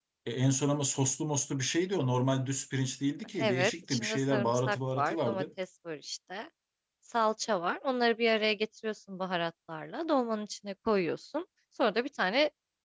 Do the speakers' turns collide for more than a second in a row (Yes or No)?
Yes